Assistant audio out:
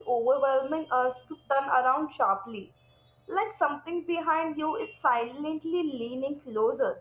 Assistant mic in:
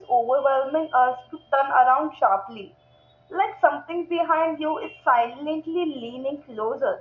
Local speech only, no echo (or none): none